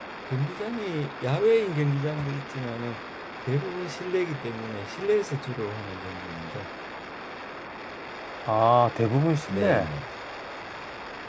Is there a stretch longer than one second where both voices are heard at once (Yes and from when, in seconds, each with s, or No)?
No